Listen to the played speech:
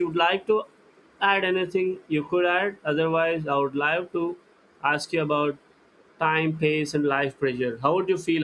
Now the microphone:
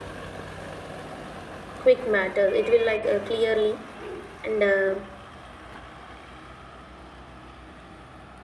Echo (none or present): none